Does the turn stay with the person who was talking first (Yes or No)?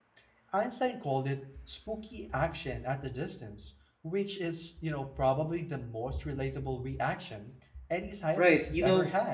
No